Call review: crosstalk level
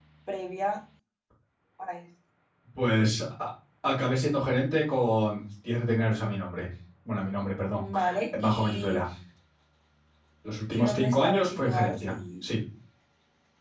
present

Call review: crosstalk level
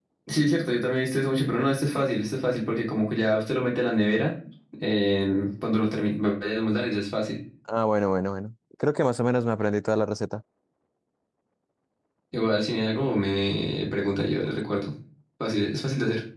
none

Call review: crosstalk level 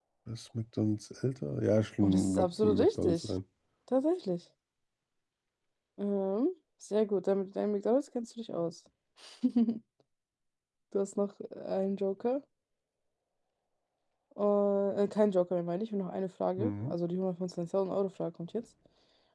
present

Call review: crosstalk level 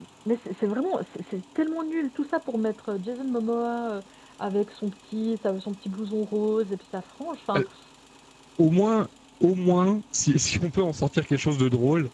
none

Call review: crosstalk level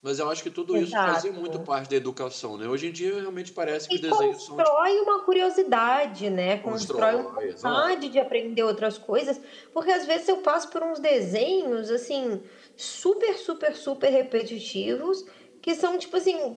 present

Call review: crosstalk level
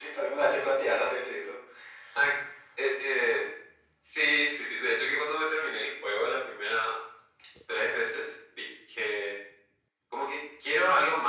none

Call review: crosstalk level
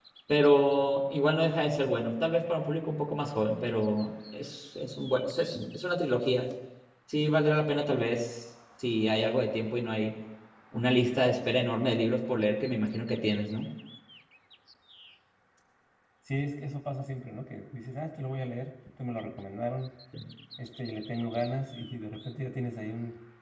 none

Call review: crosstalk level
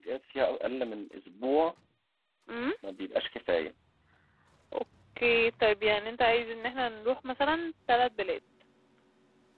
none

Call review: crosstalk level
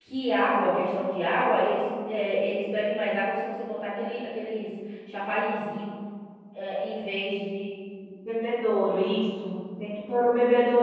none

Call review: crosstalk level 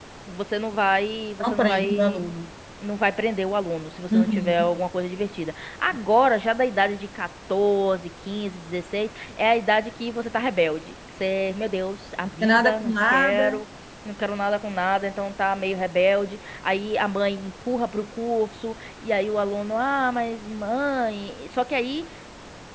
present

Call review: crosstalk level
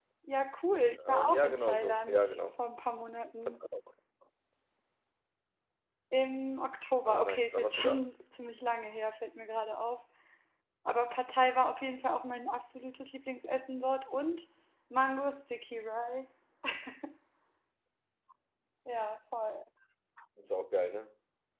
present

